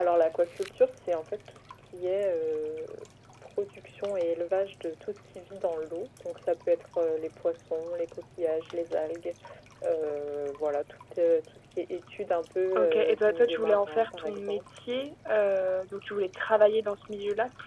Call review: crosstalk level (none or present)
present